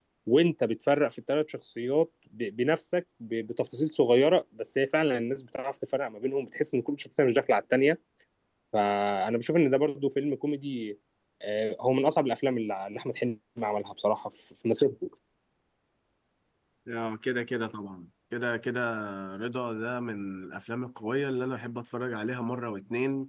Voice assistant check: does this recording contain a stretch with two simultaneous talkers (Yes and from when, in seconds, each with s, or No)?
No